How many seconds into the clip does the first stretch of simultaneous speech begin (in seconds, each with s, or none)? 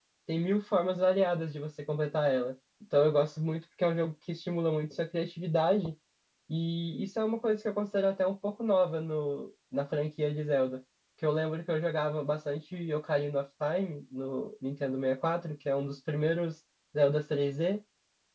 none